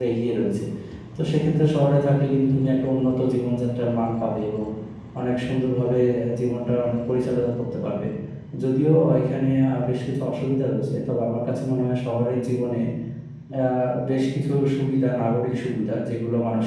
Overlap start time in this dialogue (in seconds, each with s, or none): none